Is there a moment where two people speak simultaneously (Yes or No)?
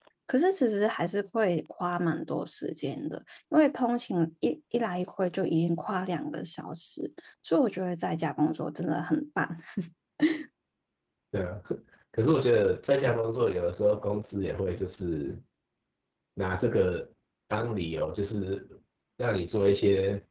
No